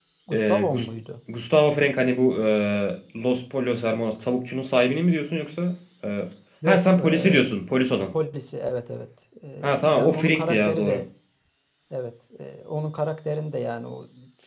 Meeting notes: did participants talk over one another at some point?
Yes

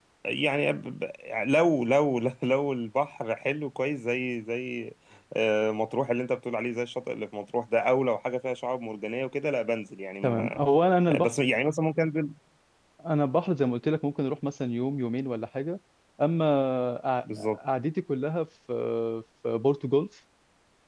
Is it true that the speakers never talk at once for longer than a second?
Yes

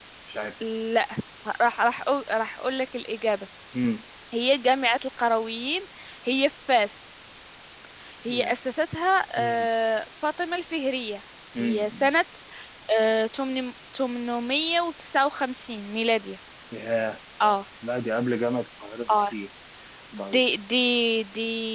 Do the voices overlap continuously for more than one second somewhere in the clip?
No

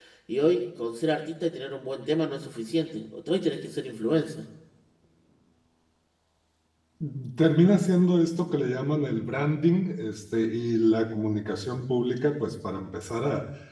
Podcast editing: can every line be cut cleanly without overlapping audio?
Yes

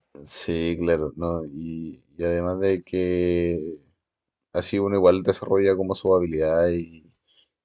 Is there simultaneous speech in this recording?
No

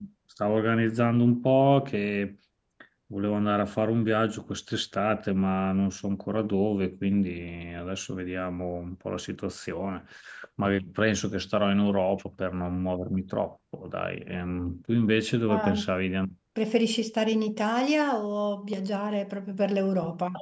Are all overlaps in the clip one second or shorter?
Yes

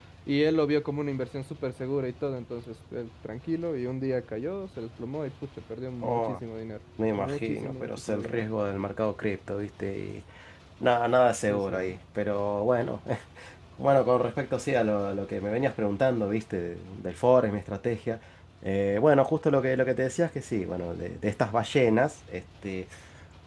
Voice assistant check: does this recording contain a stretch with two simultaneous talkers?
Yes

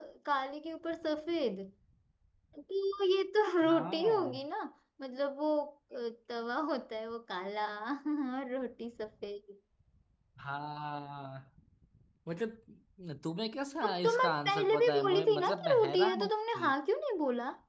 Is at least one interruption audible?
Yes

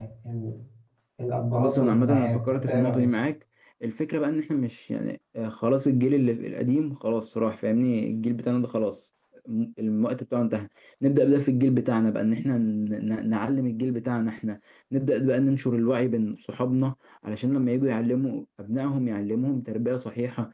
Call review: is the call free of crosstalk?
No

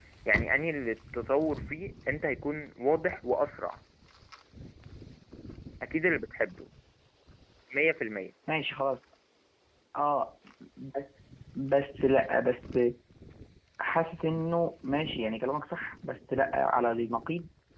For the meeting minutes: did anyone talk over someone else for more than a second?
No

